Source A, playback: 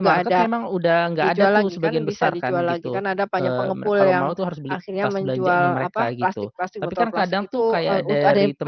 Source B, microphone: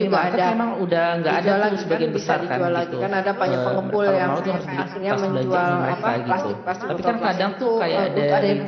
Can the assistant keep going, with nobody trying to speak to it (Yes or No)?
No